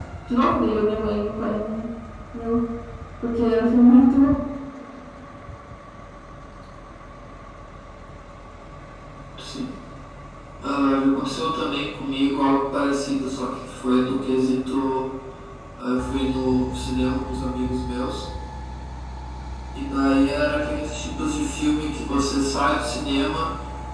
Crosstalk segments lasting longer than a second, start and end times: none

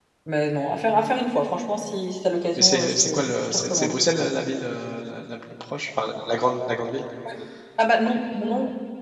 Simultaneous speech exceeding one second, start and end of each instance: 2.6-4.0

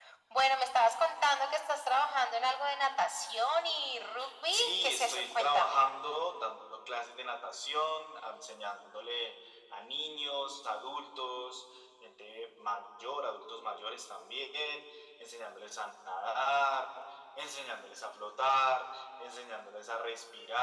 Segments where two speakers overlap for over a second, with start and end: 4.5-5.8

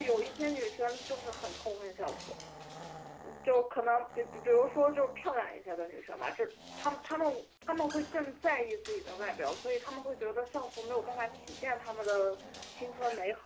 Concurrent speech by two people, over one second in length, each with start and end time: none

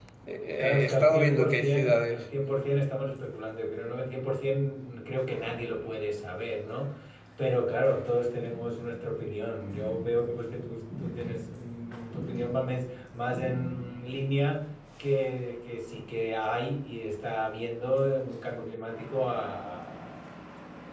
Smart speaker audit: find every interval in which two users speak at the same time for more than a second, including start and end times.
0.8-2.2

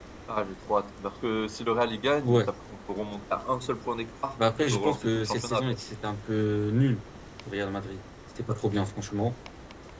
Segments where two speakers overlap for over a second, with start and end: 4.4-5.6

